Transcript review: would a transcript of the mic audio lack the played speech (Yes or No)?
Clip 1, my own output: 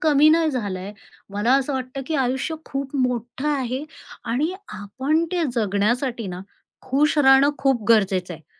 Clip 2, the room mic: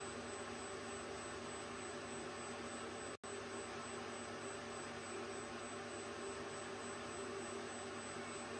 Yes